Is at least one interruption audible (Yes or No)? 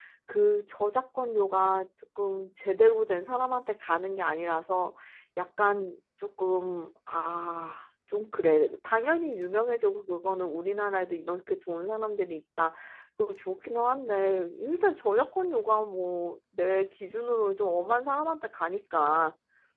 No